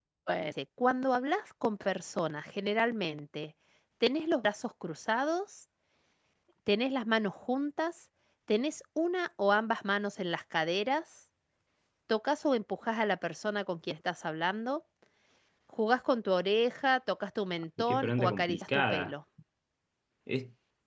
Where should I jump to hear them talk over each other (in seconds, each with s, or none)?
17.8 s